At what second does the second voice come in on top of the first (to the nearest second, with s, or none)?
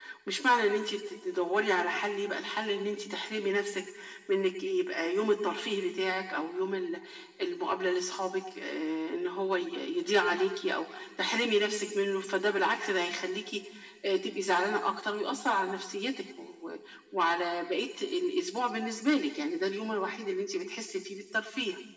none